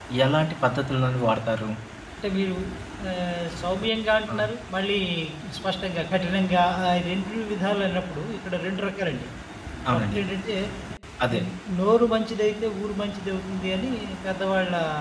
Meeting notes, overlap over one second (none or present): none